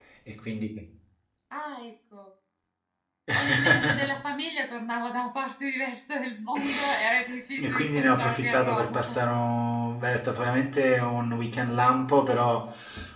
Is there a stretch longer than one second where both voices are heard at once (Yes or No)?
Yes